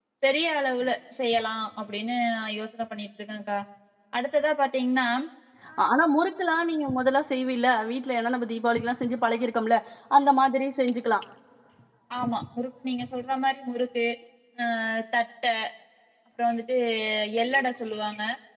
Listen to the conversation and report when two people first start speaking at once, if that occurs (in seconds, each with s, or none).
none